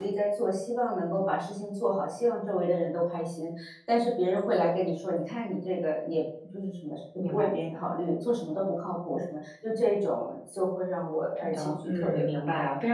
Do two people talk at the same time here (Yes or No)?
Yes